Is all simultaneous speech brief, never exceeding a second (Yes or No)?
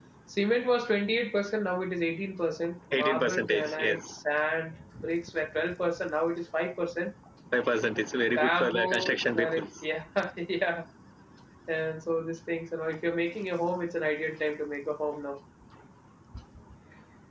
No